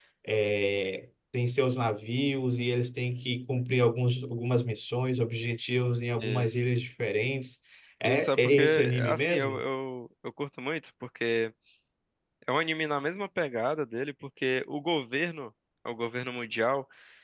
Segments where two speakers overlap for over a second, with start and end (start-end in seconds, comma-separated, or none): 8.1-9.6